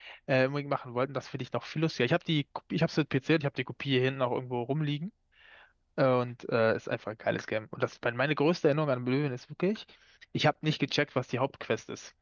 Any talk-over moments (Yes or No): No